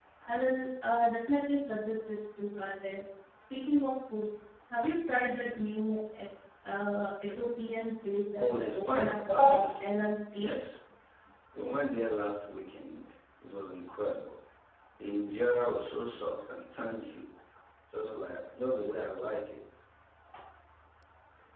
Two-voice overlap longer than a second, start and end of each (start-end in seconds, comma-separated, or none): 8.4-9.8